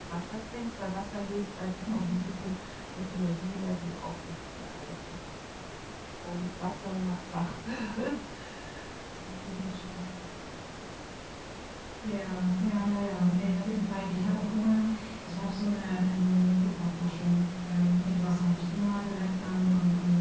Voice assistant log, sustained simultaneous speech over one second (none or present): none